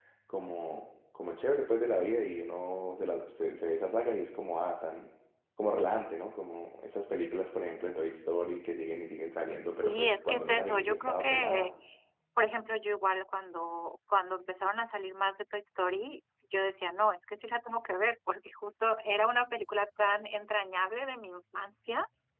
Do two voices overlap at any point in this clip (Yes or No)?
Yes